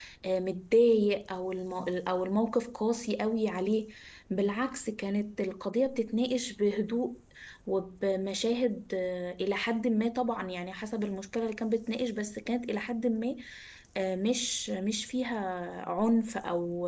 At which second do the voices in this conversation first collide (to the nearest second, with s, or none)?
none